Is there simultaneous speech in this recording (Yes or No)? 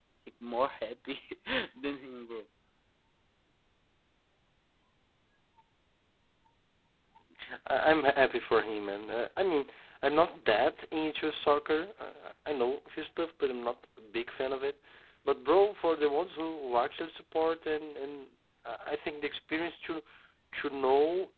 No